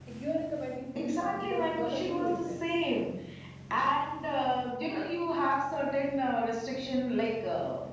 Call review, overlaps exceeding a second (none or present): present